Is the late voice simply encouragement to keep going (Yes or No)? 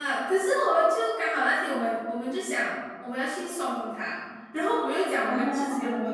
Yes